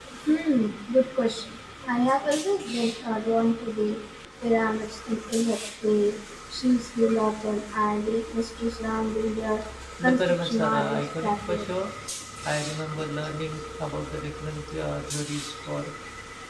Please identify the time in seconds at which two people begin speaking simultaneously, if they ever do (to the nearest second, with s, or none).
10 s